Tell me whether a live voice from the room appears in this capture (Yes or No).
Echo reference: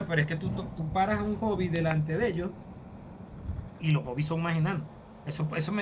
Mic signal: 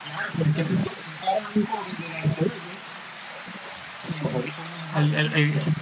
Yes